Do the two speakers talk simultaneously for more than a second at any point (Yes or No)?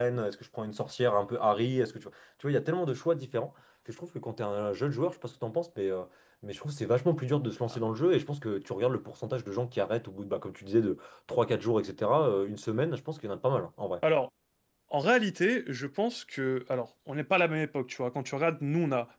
No